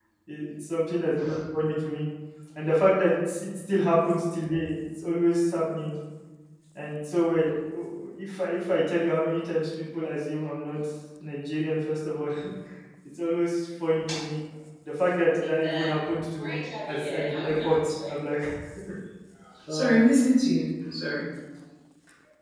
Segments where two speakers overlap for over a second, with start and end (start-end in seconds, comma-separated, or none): 16.4-18.2